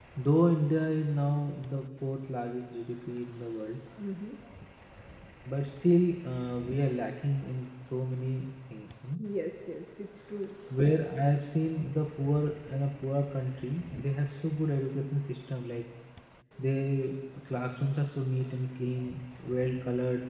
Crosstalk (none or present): none